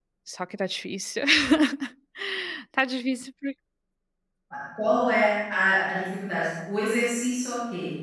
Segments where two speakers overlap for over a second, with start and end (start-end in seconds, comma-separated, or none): none